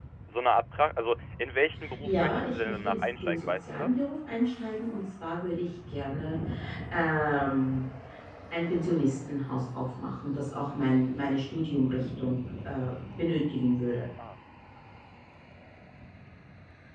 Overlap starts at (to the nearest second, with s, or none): 2 s